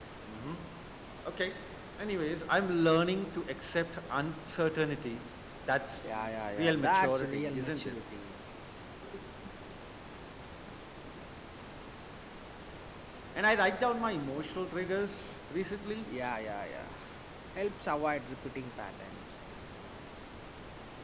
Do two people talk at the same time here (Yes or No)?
Yes